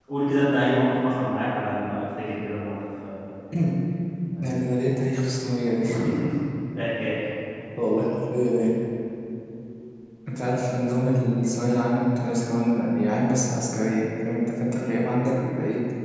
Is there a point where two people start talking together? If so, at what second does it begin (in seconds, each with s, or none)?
none